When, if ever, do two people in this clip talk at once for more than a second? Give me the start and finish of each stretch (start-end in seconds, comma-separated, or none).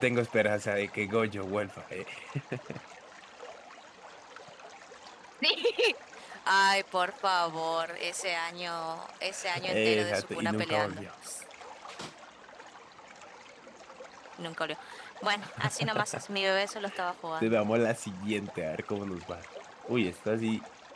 9.6-11.0